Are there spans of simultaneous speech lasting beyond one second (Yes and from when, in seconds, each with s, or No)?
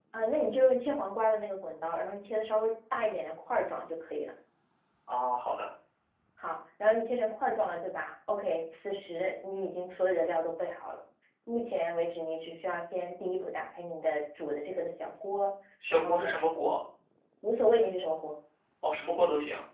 No